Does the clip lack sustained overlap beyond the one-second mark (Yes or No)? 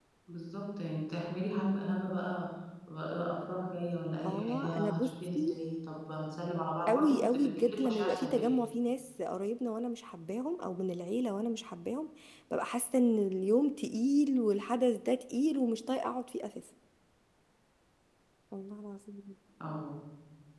No